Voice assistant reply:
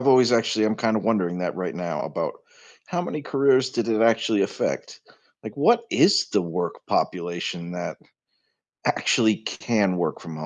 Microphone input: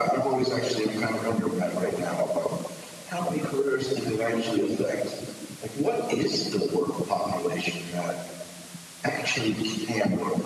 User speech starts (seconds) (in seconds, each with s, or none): none